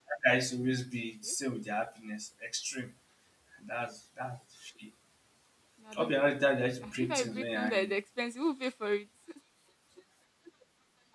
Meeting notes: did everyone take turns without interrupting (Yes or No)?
No